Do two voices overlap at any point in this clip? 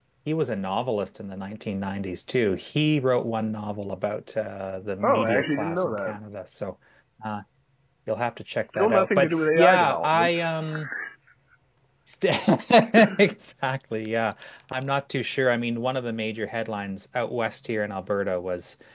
Yes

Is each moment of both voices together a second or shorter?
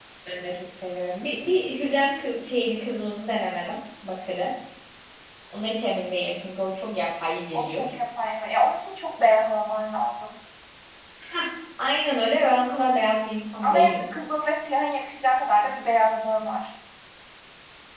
Yes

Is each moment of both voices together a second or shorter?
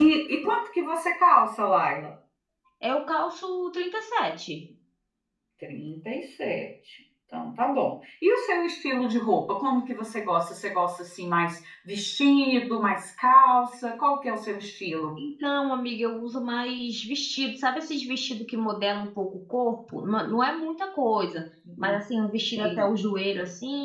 Yes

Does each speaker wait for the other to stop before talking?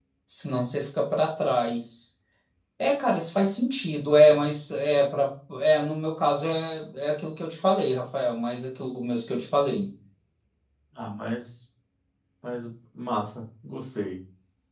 Yes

